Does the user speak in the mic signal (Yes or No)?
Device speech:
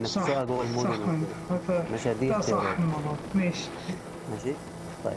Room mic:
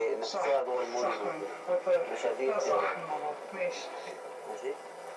No